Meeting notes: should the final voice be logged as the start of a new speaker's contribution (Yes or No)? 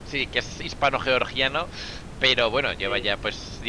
No